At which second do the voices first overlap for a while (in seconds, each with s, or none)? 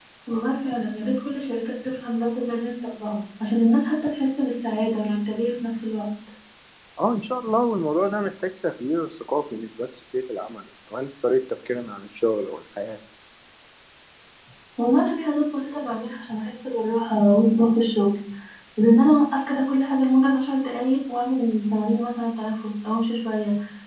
none